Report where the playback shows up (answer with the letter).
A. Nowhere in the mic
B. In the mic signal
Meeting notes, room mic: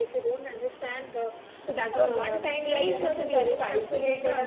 B